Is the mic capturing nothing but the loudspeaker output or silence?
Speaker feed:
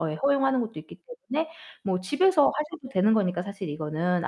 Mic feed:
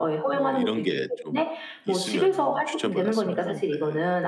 No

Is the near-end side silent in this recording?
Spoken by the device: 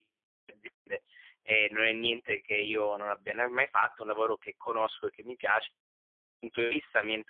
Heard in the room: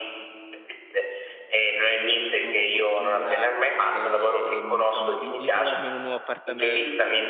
No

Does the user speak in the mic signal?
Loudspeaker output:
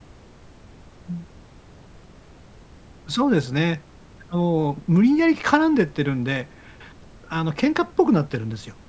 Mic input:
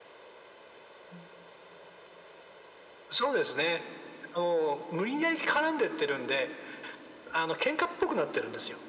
No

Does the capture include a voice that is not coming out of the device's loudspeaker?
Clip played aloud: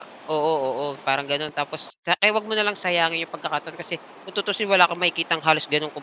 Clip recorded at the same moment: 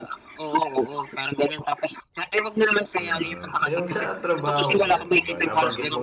Yes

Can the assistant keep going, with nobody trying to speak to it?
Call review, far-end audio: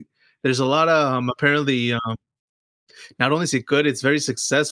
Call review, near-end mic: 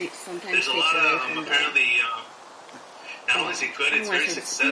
No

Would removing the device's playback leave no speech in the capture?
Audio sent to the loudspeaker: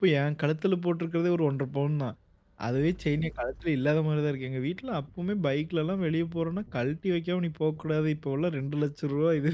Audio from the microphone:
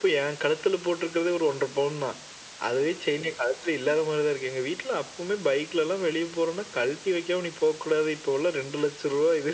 Yes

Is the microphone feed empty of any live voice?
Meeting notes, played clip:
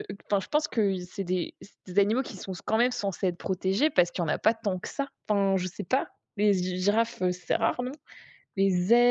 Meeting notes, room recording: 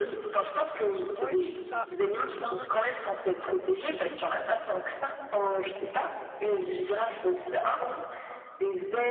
No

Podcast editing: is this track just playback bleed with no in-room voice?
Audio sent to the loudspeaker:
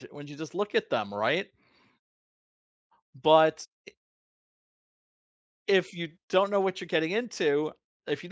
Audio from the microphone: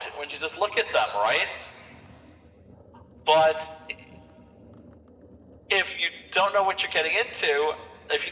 Yes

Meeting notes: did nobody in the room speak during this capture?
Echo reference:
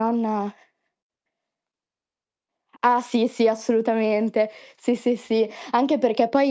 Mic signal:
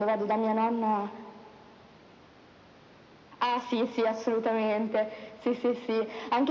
Yes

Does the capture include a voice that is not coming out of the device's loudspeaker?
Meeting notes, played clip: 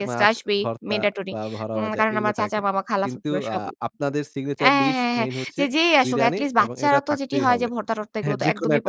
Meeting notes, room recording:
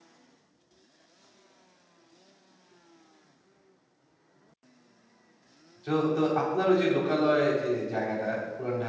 Yes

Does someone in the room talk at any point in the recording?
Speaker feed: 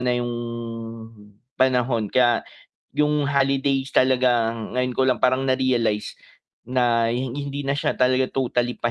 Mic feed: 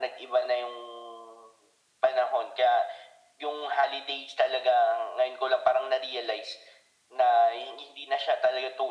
No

